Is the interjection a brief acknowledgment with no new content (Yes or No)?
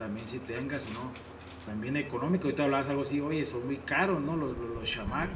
No